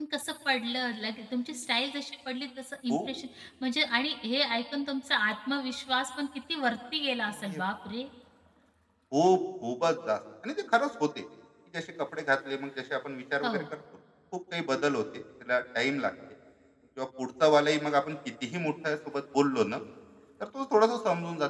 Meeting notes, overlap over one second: none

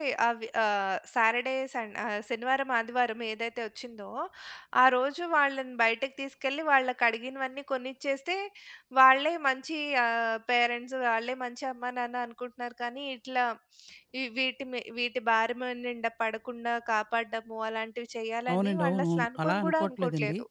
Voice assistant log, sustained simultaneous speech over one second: present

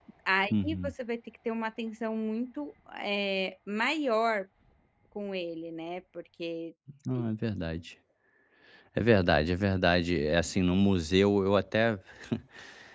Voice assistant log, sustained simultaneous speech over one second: none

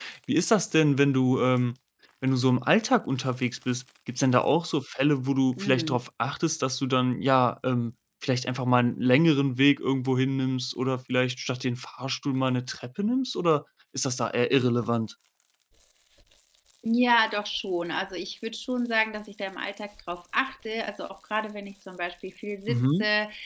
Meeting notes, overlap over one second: none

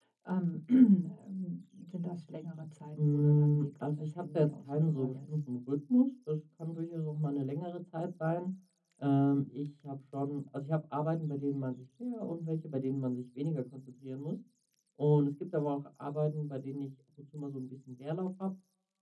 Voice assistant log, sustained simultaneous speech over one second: present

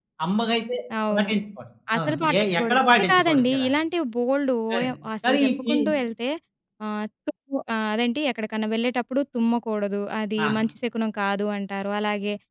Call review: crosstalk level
present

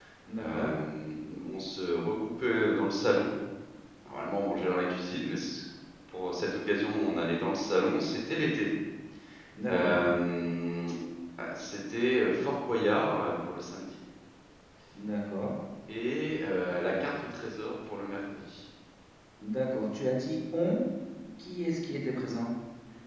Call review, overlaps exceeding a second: none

